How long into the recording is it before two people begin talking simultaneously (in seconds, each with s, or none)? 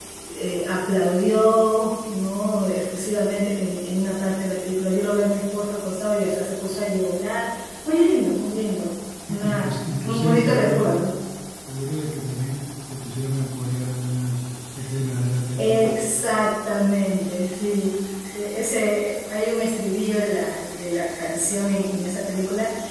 9.4 s